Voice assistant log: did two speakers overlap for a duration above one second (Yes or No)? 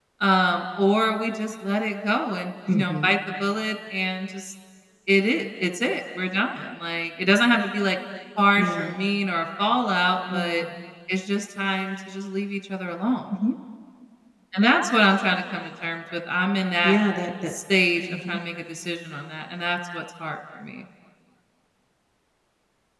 No